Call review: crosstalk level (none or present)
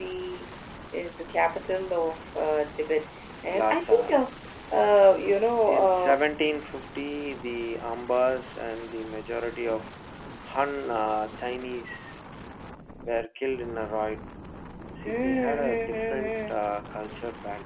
present